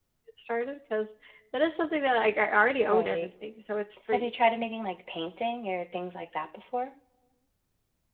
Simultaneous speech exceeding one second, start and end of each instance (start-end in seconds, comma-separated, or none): none